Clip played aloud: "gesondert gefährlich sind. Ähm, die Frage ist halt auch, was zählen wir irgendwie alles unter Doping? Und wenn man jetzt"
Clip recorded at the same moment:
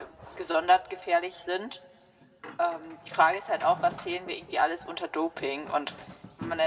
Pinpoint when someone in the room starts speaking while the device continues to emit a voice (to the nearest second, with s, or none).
none